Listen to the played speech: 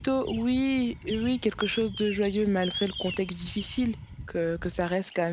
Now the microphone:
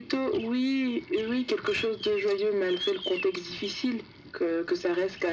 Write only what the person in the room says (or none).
none